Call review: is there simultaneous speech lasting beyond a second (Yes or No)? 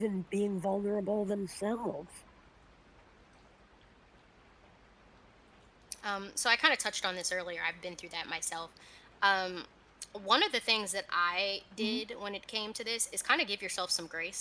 No